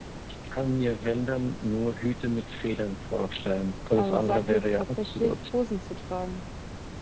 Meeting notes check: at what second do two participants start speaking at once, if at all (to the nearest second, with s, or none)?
4 s